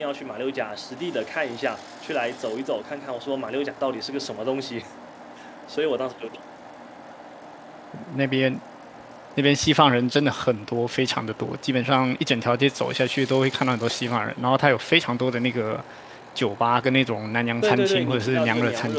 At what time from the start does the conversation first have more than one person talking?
17.6 s

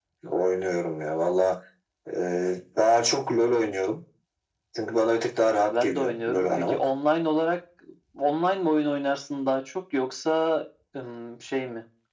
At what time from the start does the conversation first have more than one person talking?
5.4 s

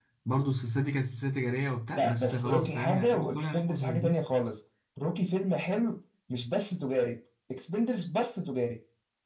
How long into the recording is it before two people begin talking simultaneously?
1.9 s

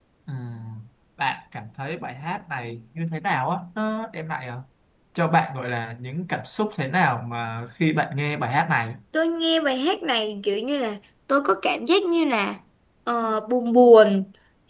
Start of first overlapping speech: none

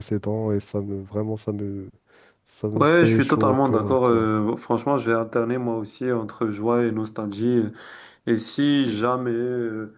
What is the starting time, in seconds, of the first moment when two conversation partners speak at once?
2.8 s

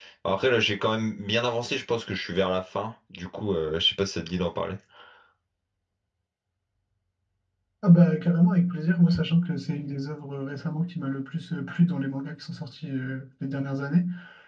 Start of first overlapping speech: none

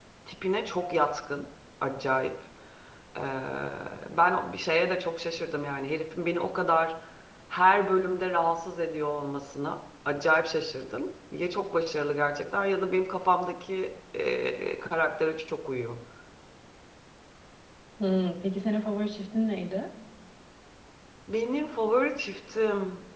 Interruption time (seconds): none

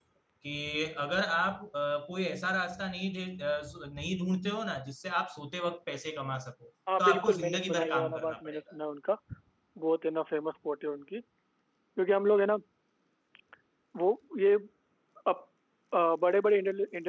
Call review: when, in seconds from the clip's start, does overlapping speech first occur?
6.9 s

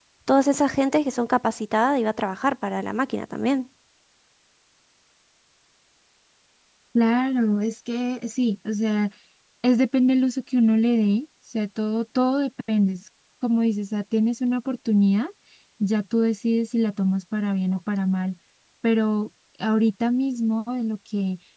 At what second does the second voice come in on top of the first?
none

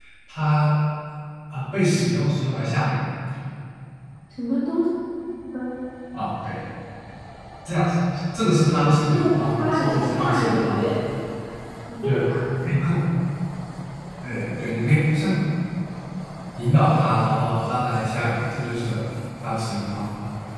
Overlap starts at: 9.1 s

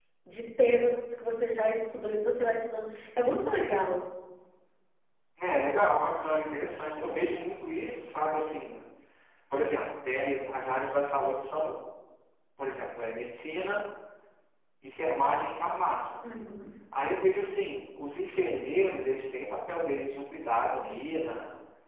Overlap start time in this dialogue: none

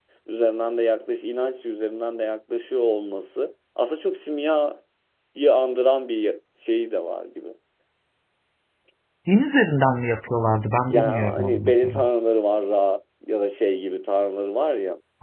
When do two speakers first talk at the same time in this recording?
10.9 s

